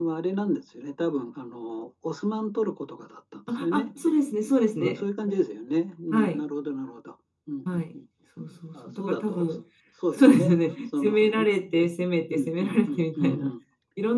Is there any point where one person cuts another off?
Yes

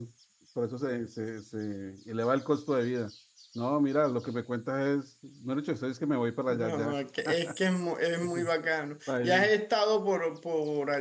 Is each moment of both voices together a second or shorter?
Yes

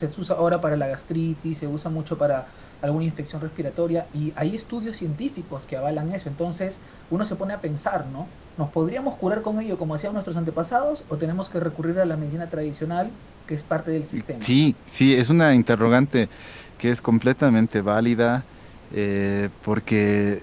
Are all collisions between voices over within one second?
Yes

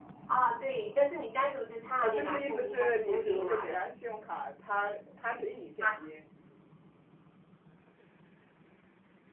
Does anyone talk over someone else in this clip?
Yes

